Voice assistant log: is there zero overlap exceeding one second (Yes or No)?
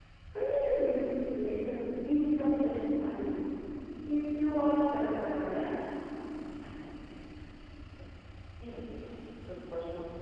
Yes